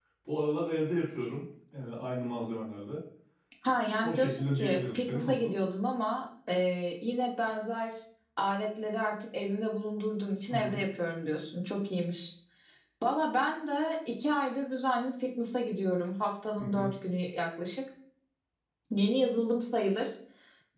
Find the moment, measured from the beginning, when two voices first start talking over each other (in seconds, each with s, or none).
4.0 s